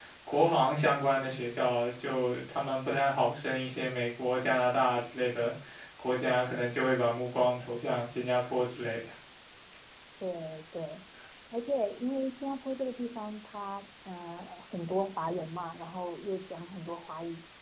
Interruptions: none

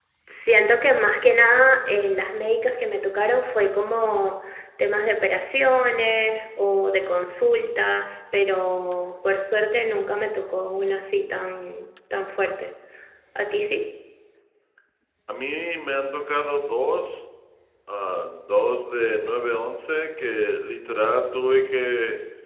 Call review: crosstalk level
none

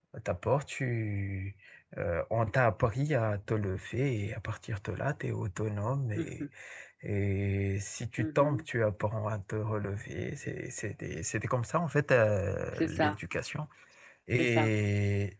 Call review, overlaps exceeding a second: none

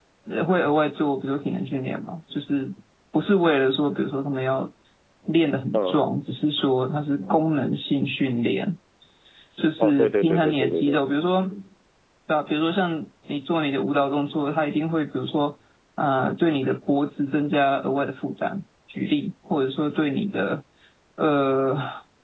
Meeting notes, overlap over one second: present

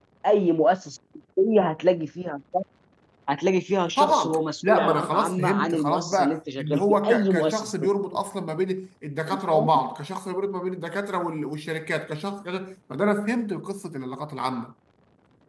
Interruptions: present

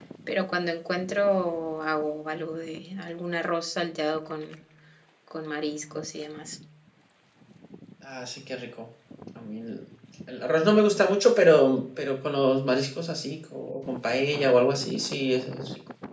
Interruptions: none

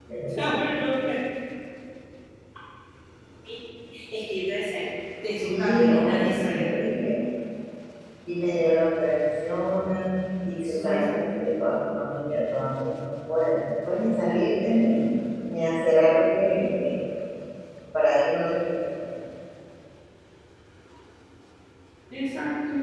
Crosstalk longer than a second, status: present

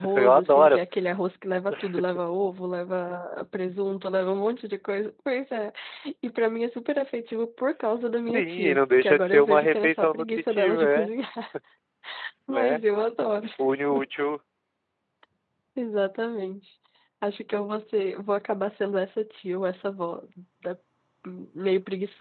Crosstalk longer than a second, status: present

